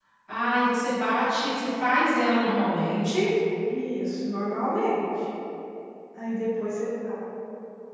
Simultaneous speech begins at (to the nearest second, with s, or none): none